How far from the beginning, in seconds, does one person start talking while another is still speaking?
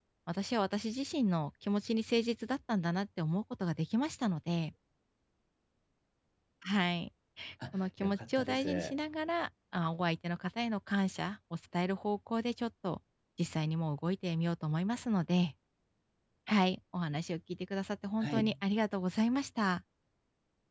7.7 s

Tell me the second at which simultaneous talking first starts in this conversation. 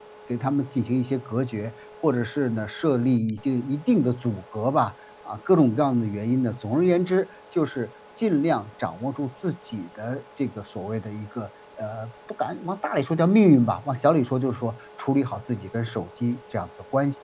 none

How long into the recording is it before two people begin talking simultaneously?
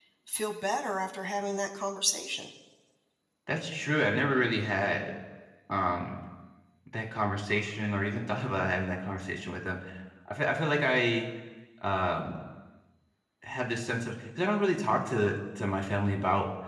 none

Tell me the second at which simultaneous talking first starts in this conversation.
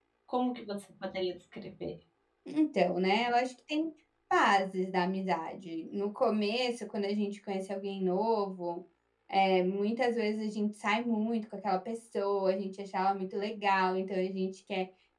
none

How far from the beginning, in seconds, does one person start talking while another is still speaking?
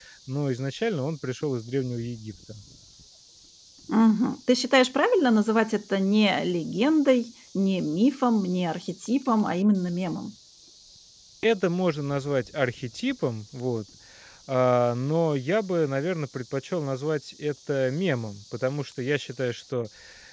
none

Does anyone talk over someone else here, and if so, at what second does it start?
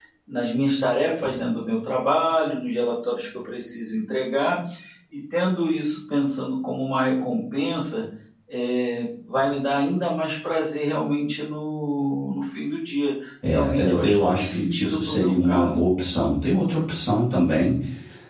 13.4 s

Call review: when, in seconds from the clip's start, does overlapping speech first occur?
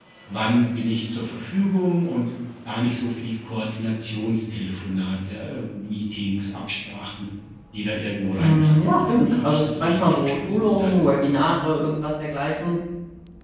8.4 s

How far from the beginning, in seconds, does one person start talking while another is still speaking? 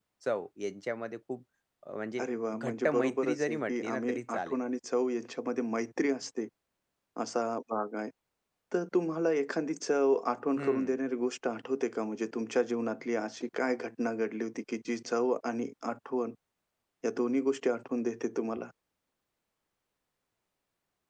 2.2 s

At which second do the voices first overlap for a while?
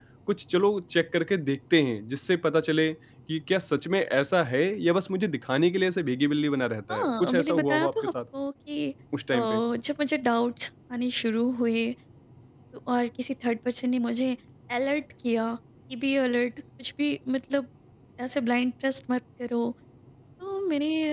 6.9 s

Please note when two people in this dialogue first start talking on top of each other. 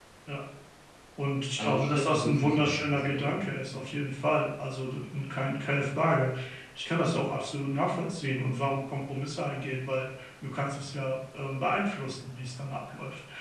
1.6 s

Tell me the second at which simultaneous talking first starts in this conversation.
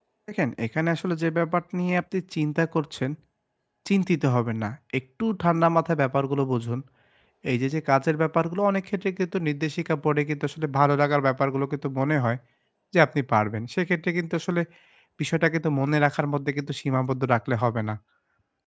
none

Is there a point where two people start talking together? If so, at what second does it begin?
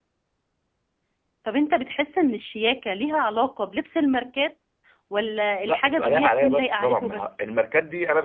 5.7 s

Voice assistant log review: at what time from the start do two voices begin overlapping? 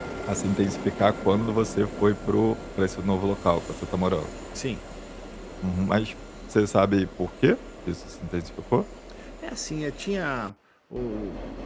none

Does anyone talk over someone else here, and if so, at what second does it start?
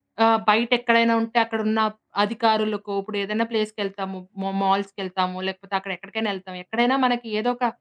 none

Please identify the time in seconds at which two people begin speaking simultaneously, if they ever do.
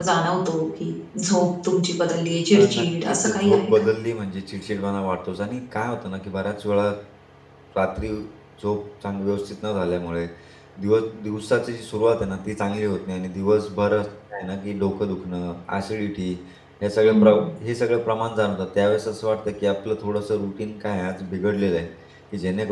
2.5 s

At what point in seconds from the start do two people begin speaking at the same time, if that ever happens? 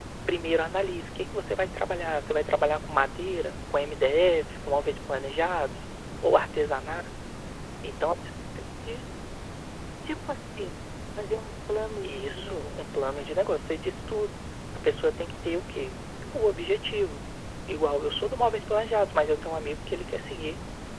12.0 s

